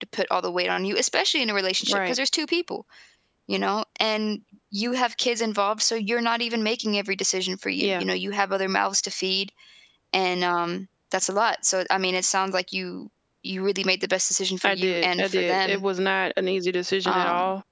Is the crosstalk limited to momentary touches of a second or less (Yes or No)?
No